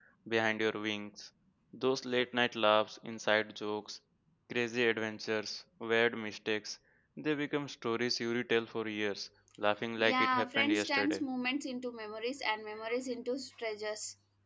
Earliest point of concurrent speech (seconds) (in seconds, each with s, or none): 10.0 s